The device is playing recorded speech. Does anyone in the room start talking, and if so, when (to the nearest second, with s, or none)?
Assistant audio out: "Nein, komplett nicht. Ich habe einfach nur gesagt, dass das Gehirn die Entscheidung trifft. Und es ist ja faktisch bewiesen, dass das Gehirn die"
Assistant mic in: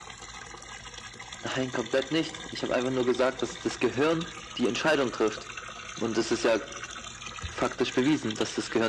none